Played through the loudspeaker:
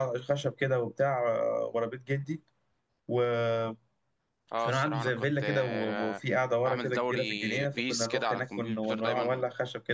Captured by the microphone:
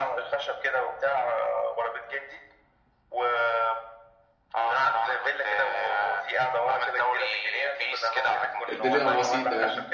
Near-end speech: present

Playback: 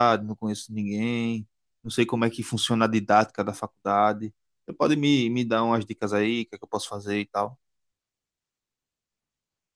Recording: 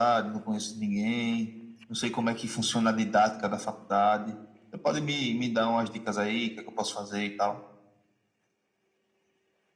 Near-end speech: none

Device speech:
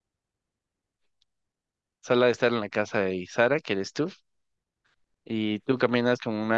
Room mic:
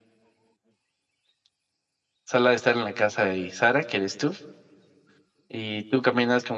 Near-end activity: none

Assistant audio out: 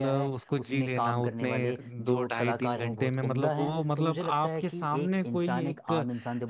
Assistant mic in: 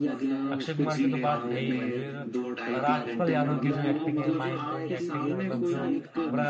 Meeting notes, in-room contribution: present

